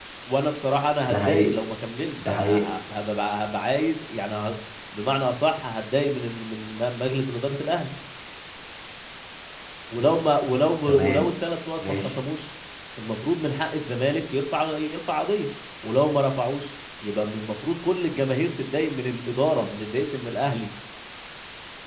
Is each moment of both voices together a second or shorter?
Yes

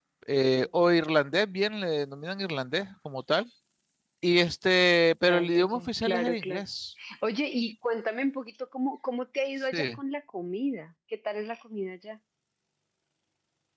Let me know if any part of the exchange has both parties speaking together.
Yes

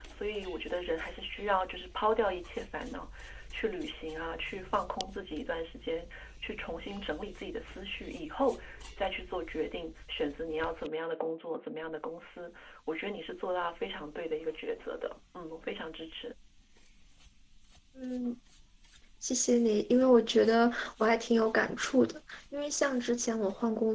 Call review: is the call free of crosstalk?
Yes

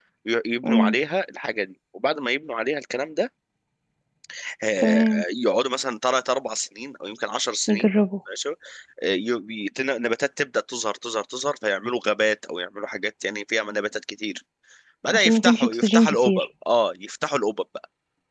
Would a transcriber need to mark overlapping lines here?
Yes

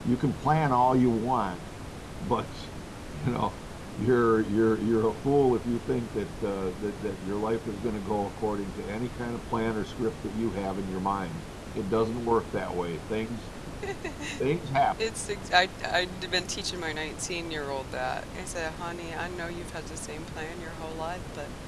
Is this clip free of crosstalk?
Yes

